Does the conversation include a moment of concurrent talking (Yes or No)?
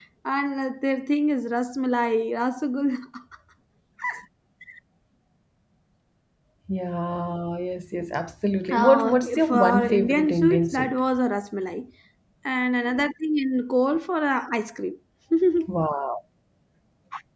Yes